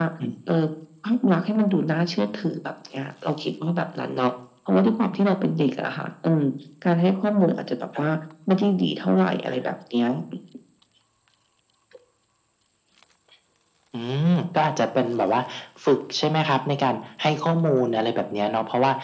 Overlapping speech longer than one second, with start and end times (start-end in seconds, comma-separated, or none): none